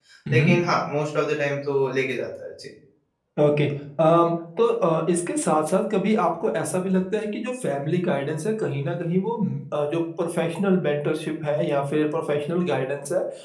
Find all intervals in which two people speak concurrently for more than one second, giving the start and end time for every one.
none

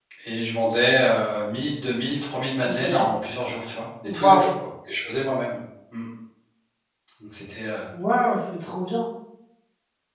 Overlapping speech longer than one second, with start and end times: none

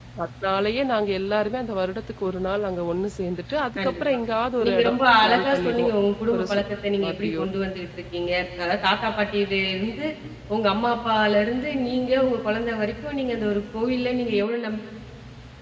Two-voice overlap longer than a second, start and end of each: 4.7-5.9

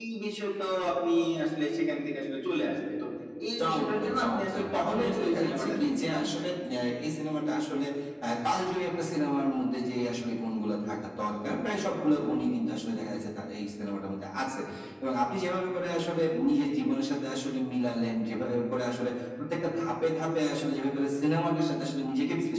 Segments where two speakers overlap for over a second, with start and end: 3.6-6.3

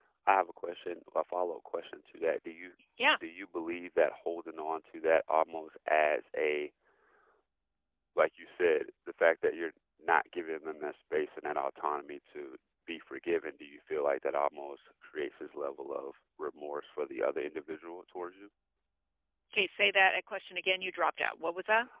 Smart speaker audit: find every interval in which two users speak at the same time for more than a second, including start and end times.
none

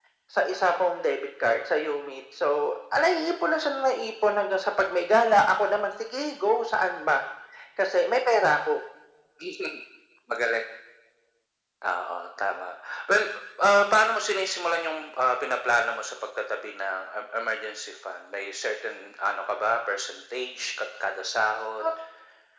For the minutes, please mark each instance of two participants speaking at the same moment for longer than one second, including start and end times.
none

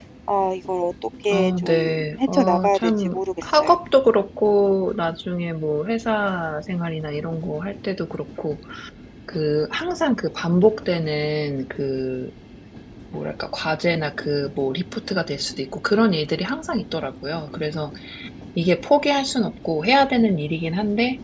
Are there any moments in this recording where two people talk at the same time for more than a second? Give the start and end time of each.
1.3-3.7

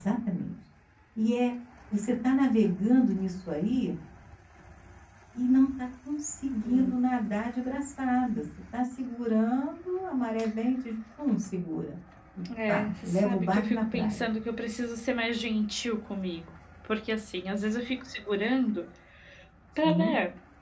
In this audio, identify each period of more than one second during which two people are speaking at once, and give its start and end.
12.7-14.2

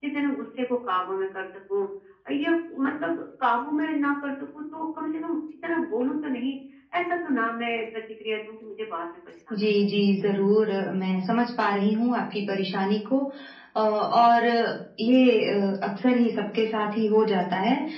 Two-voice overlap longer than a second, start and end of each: none

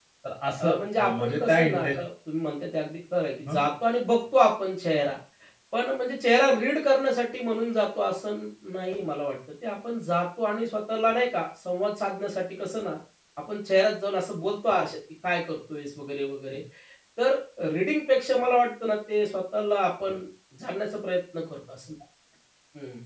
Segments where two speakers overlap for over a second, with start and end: 0.6-2.0

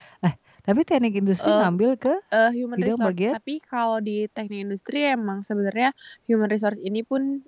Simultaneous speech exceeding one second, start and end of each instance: none

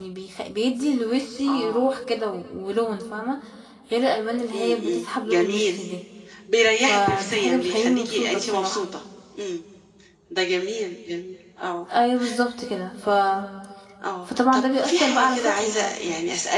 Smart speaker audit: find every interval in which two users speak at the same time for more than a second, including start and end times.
4.5-5.8, 6.8-8.8, 14.5-15.9

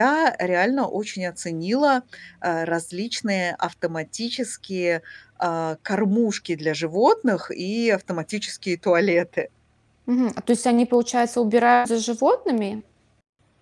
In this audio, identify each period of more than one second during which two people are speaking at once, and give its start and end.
none

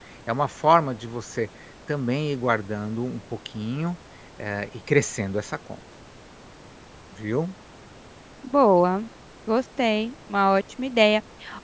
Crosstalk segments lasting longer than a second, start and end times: none

